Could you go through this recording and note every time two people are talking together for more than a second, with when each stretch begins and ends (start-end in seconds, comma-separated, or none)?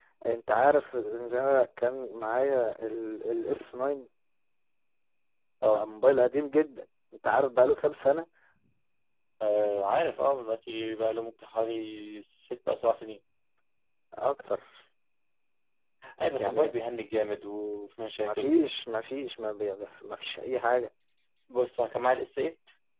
none